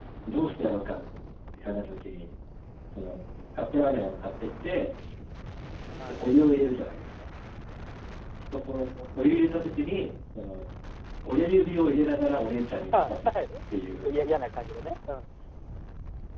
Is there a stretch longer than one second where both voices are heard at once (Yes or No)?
No